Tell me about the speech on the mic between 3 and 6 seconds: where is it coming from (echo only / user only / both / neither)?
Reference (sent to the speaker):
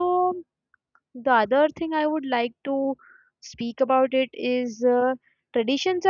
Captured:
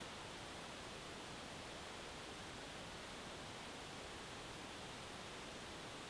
neither